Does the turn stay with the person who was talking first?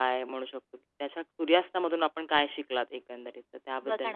No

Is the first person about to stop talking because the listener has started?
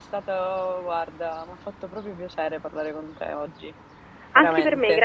Yes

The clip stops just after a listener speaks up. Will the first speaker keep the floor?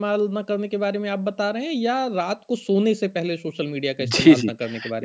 No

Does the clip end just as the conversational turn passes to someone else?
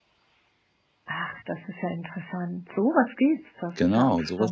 Yes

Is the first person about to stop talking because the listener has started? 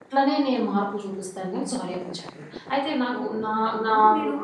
Yes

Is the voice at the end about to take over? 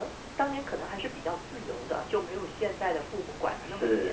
Yes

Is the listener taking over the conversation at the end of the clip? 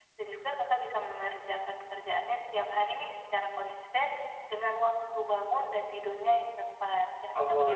Yes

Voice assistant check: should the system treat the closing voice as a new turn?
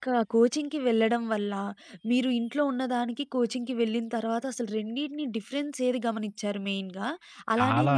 No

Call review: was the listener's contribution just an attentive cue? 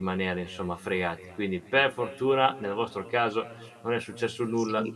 No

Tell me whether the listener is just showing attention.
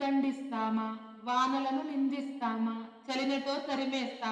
Yes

